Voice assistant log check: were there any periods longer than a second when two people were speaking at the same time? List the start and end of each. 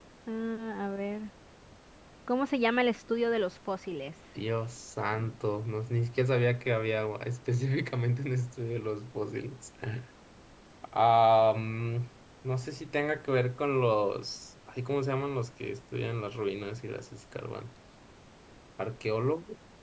none

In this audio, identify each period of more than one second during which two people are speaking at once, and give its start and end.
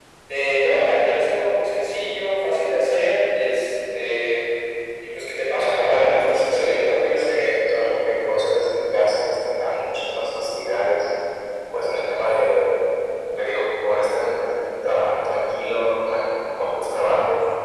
5.5-7.3

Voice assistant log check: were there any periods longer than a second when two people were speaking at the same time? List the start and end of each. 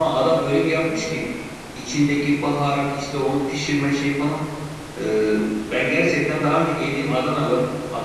none

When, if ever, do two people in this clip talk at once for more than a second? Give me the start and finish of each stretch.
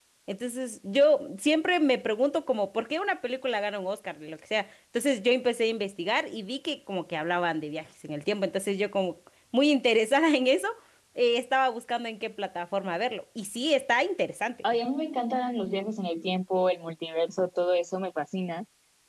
none

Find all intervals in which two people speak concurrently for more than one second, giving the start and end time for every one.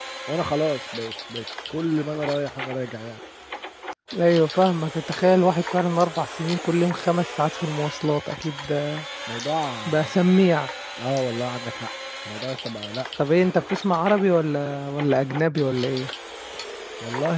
none

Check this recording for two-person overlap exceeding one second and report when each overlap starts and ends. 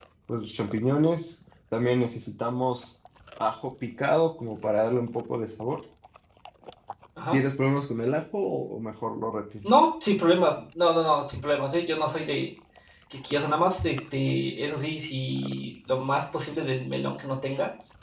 none

